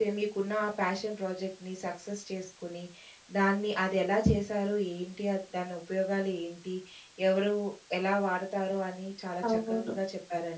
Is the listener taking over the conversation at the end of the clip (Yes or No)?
No